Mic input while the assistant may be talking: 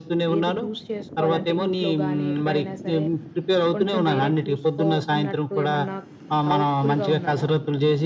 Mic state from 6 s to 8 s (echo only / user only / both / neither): both